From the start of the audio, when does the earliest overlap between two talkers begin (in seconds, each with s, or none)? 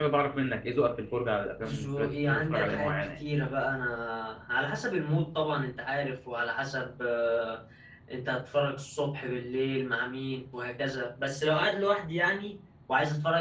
1.6 s